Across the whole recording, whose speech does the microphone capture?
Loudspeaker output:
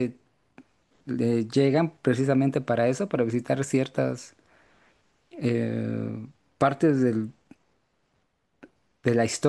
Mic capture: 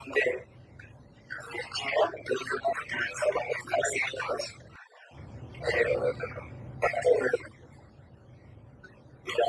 echo only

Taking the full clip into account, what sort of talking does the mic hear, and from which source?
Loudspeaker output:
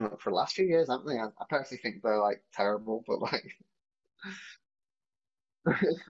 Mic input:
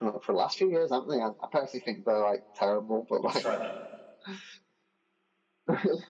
both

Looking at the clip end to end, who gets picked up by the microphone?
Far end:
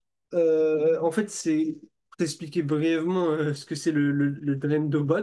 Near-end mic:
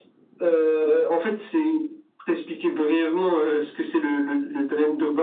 echo only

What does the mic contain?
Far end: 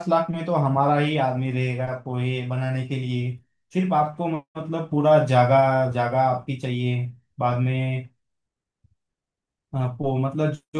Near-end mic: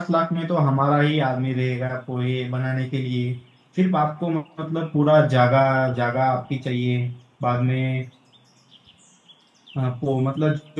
echo only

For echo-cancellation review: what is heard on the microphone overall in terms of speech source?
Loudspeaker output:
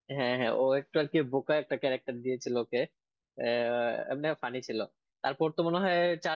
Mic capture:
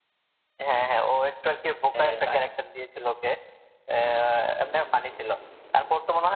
both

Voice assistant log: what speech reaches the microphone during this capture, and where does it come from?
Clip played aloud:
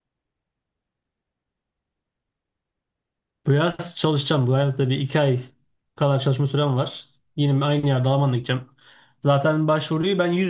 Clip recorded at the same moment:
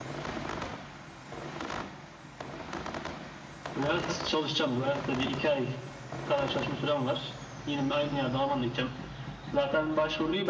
echo only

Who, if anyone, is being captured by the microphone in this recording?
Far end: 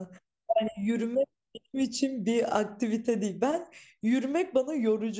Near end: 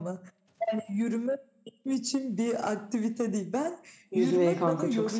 both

